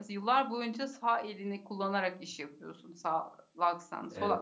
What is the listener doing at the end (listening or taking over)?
listening